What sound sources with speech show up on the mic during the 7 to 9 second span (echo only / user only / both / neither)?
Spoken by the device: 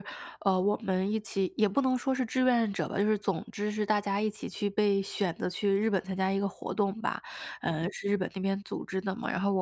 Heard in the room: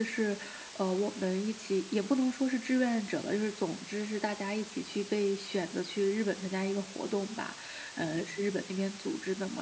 echo only